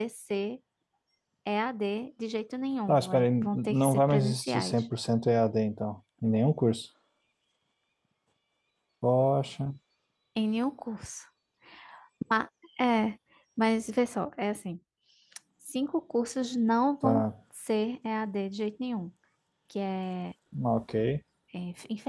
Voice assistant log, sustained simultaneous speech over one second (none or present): present